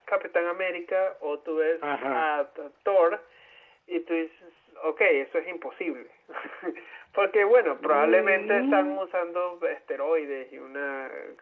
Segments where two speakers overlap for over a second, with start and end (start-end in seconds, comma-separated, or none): 7.8-9.0